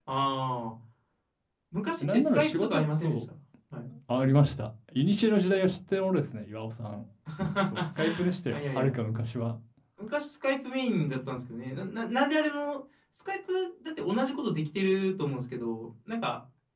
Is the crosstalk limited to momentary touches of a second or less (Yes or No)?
No